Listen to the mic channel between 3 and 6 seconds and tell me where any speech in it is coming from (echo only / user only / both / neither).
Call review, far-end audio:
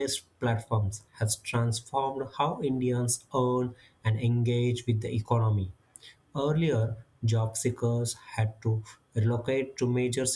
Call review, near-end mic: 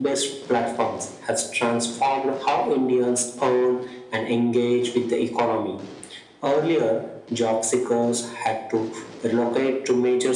echo only